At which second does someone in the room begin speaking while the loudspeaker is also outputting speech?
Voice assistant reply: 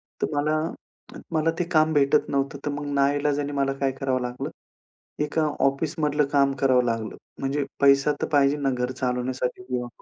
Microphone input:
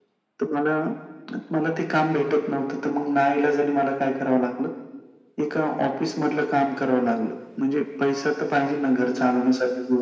none

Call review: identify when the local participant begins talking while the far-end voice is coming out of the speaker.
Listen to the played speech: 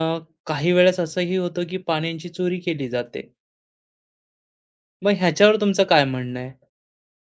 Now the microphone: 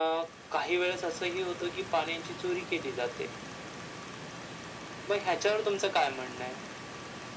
none

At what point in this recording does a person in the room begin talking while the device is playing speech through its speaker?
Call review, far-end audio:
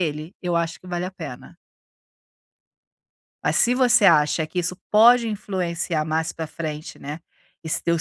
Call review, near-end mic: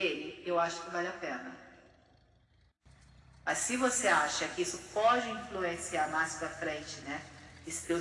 none

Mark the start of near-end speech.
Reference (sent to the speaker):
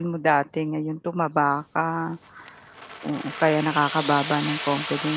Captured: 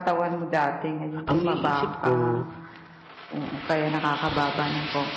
1.2 s

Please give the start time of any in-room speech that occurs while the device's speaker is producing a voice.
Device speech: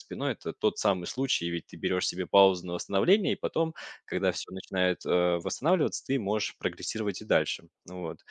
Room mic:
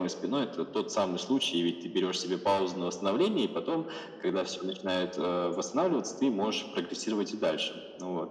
none

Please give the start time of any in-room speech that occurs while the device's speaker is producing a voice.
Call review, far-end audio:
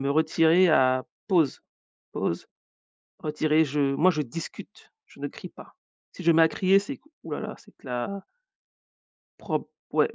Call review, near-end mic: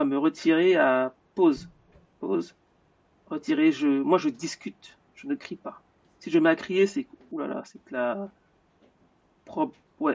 none

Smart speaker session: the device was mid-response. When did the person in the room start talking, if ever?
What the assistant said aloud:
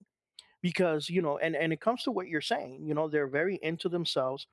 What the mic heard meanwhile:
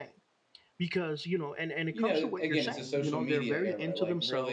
1.9 s

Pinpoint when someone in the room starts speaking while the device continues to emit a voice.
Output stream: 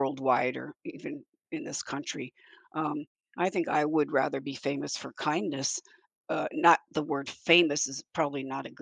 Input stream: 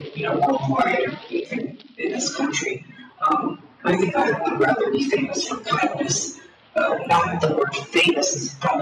7.1 s

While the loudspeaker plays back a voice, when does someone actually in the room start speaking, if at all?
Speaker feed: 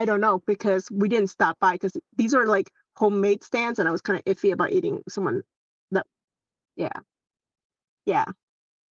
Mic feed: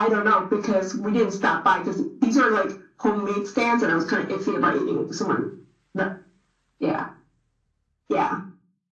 none

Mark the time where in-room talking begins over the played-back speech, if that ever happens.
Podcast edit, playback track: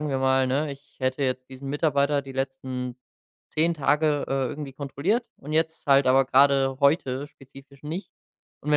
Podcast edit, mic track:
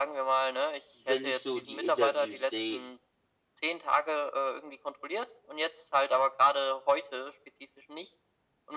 1.1 s

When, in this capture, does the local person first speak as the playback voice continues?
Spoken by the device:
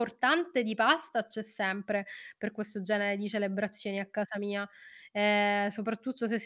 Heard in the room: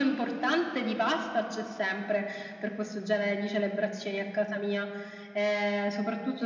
none

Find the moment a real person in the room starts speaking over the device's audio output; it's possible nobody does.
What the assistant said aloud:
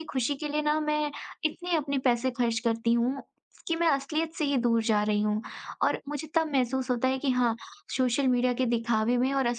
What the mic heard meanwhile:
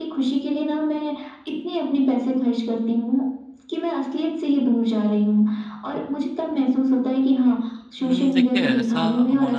8.0 s

